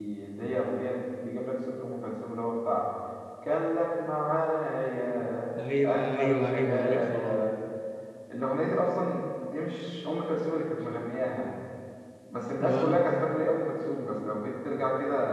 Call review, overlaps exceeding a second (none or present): present